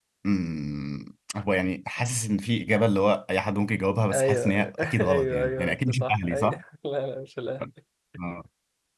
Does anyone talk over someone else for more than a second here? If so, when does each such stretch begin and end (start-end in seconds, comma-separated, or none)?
4.1-6.6